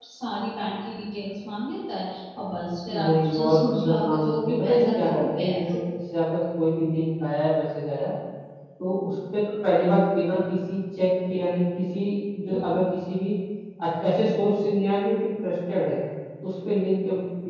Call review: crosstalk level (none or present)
present